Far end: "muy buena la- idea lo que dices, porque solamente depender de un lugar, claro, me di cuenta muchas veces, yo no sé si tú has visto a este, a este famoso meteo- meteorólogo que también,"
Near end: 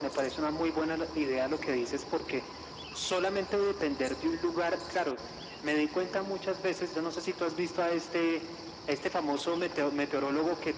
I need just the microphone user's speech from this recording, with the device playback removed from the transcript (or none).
none